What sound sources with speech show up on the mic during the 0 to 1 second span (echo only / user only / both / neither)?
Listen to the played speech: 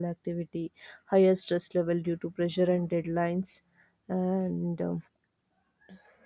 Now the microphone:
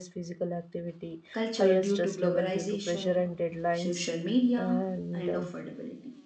echo only